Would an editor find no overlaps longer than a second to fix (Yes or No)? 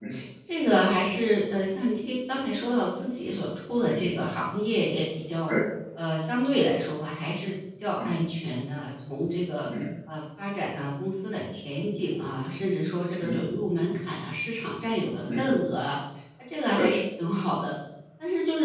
Yes